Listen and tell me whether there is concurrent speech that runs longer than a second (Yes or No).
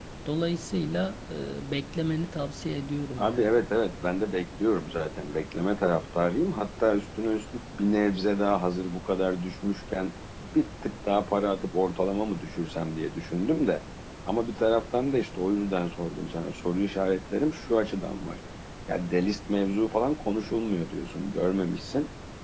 No